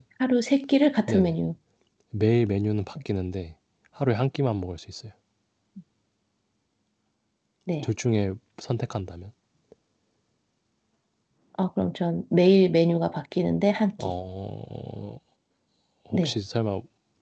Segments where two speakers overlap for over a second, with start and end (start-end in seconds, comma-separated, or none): none